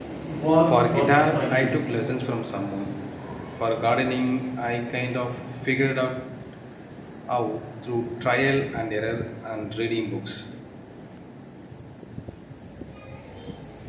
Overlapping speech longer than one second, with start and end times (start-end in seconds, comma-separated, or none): 0.7-1.9